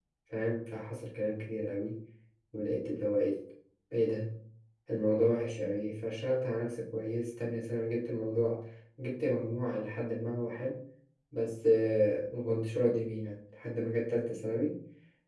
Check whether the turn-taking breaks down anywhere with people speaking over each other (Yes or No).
No